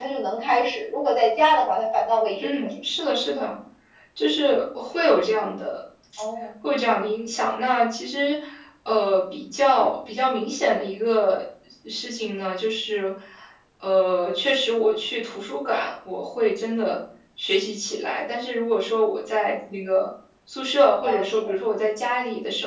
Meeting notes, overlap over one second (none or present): none